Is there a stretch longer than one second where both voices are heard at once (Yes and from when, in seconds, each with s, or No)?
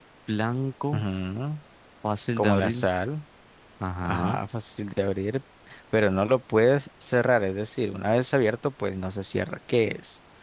No